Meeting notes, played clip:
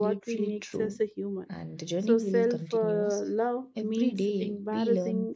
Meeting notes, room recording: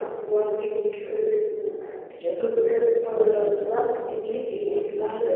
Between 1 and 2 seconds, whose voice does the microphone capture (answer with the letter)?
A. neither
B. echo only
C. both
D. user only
B